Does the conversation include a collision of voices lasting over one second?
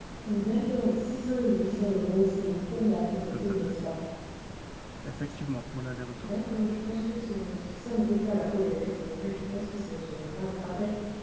No

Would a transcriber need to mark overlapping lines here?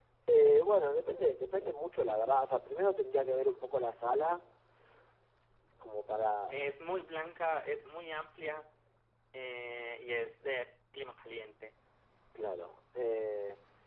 No

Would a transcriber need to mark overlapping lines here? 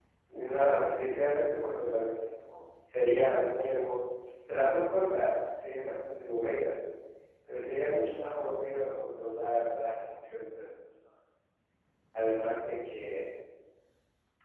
No

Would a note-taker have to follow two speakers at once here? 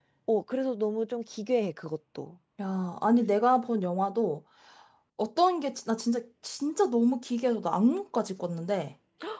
No

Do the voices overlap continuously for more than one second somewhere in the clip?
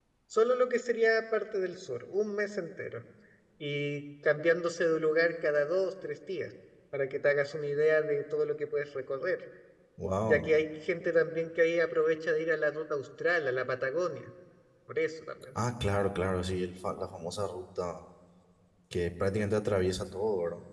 No

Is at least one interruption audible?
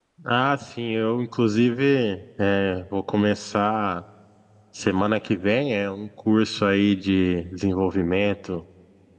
No

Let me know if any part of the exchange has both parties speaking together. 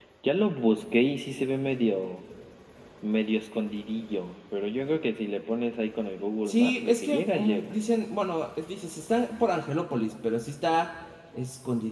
Yes, from 6.5 s

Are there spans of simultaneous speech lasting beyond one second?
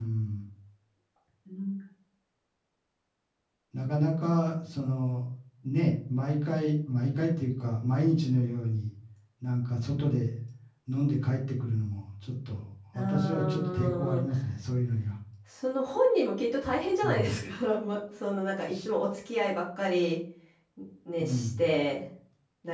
Yes, from 13.0 s

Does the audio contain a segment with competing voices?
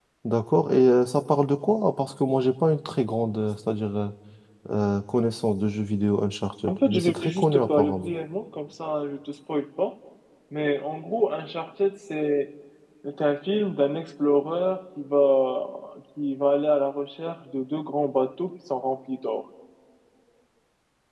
Yes, from 6.7 s

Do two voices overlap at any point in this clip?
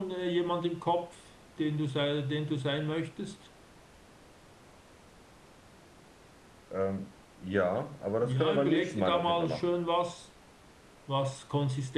Yes, from 8.2 s

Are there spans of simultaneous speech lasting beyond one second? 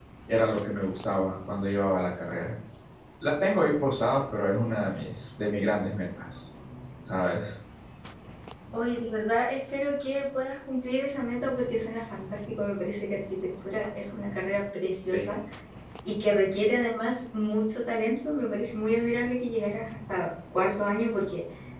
No

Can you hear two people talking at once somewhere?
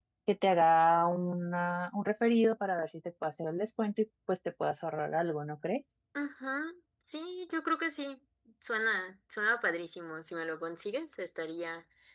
No

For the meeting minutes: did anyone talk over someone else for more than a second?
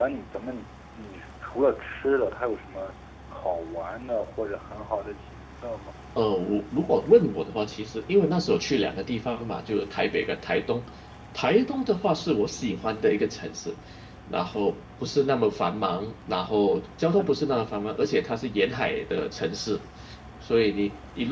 No

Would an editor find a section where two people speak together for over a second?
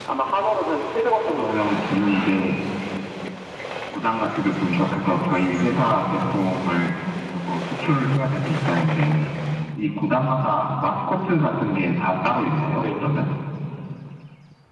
Yes, from 1.3 s

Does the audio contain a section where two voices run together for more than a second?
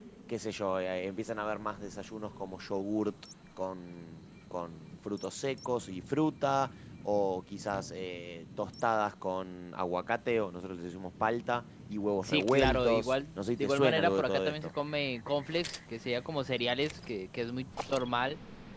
Yes, from 12.2 s

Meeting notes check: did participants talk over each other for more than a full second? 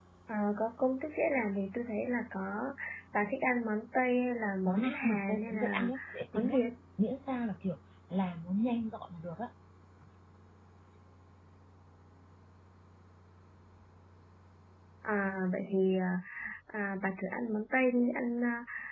Yes, from 4.7 s

